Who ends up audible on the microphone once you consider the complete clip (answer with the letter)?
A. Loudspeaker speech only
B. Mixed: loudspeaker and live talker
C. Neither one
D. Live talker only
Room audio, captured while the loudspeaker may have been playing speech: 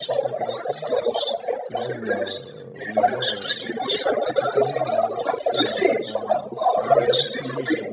B